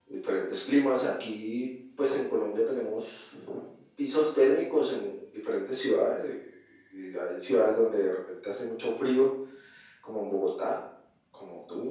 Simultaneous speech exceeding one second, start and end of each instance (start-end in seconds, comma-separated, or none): none